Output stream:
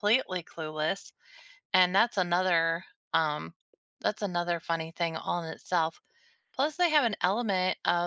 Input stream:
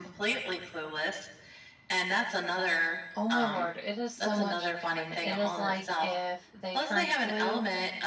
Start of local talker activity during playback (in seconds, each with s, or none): 3.1 s